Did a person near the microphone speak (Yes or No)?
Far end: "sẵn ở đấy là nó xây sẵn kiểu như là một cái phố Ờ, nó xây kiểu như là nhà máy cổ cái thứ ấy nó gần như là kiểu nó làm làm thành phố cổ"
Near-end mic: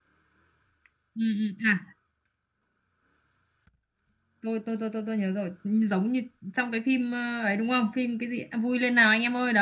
Yes